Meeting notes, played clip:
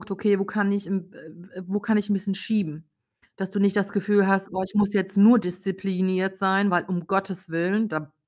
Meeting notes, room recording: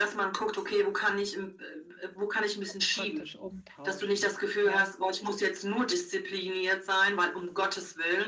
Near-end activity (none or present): present